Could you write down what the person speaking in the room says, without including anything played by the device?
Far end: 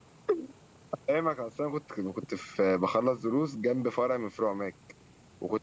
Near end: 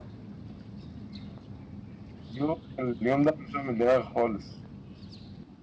اليوم اليوم ده مش من دماغي خالص

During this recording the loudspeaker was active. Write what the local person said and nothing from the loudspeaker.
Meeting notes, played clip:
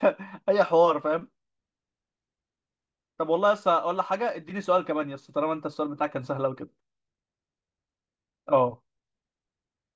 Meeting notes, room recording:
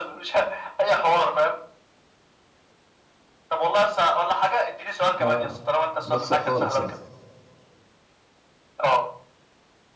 اه بخسر خالص يعني

